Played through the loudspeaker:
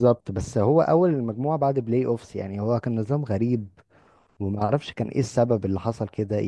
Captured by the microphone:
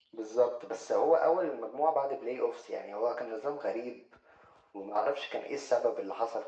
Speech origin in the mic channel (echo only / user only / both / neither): echo only